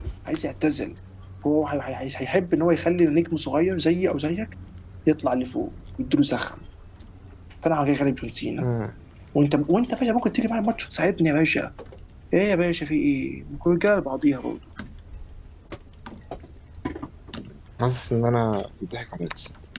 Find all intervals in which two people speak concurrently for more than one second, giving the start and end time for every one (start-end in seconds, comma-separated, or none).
none